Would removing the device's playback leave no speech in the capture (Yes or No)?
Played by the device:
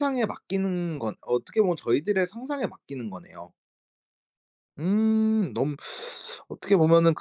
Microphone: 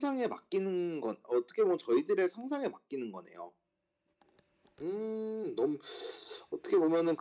Yes